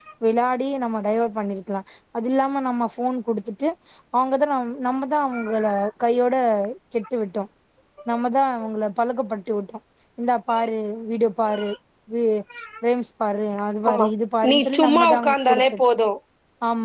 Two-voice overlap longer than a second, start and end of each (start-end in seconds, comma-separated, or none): 14.5-15.7